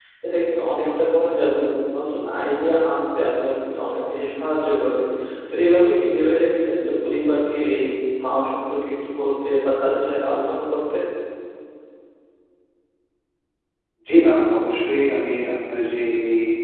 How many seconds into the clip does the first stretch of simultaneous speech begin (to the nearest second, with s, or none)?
none